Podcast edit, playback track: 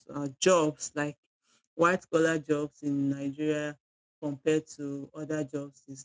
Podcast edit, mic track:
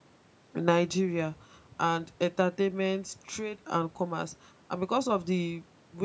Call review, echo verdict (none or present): none